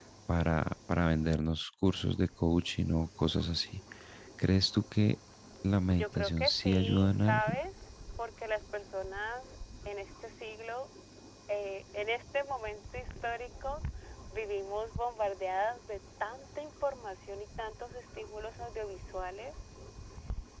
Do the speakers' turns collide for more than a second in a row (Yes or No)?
Yes